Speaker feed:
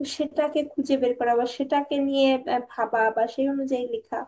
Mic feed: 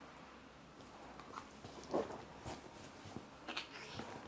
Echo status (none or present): none